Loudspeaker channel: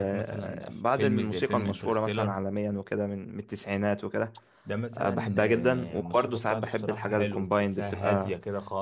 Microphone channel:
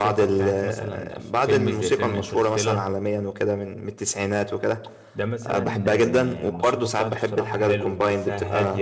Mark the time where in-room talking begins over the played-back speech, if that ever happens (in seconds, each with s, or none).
none